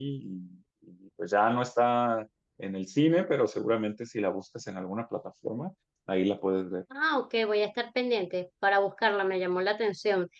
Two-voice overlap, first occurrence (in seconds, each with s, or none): none